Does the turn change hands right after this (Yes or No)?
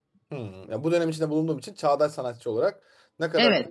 Yes